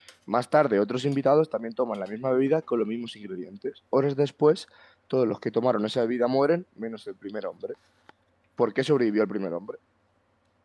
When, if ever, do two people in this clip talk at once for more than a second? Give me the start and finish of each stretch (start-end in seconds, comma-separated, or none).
none